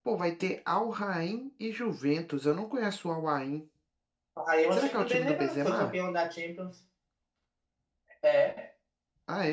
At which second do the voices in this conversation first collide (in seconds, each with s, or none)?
4.7 s